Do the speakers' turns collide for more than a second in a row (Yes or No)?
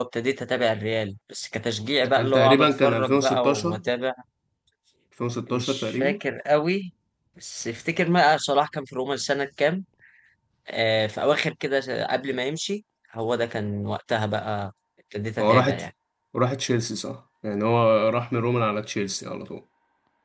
Yes